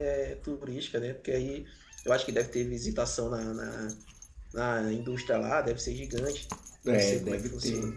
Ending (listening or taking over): taking over